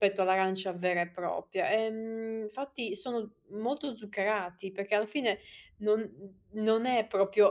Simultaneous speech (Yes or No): No